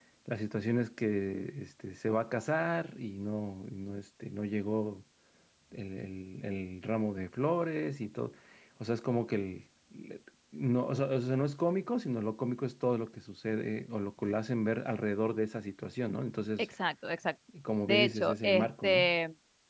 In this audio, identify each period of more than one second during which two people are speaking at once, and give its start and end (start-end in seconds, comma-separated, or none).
17.9-19.1